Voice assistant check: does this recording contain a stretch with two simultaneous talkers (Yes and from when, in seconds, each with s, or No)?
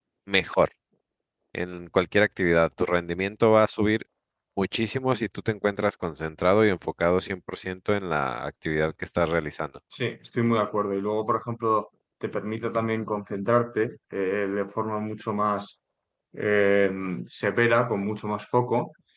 No